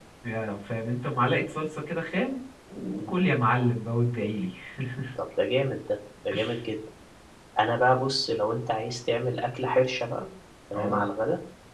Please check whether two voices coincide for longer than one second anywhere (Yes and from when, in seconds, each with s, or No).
No